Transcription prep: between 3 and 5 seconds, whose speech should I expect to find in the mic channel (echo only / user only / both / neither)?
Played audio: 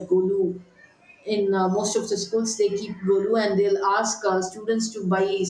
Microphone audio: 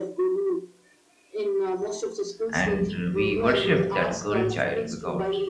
both